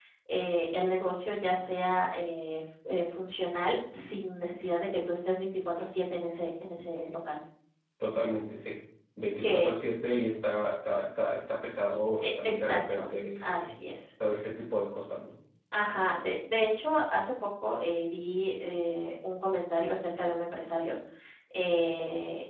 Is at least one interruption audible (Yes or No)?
Yes